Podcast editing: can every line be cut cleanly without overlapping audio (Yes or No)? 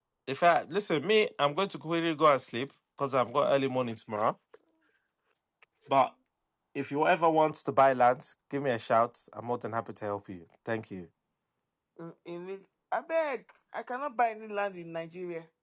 Yes